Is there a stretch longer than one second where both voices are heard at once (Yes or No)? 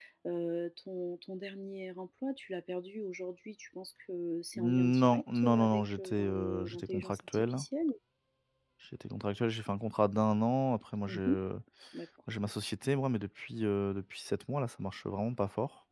Yes